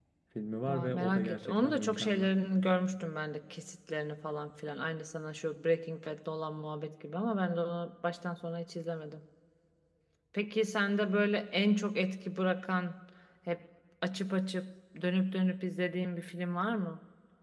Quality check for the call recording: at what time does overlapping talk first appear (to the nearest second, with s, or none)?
1 s